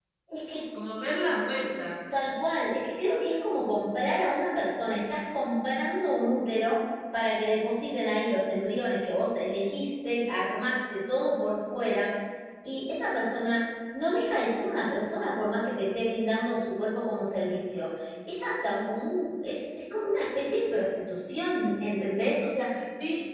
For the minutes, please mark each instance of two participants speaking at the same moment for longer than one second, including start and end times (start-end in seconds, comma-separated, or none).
none